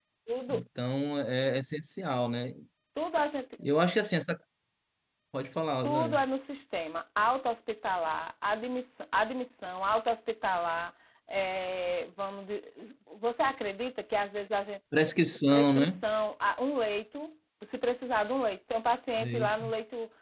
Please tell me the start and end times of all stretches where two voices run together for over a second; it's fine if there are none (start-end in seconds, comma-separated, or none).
none